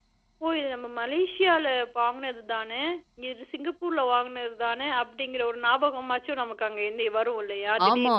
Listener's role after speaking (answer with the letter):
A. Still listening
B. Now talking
B